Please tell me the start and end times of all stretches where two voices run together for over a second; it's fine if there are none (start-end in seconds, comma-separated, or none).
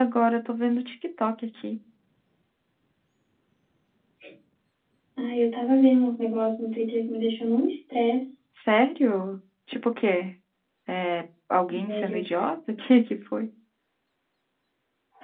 none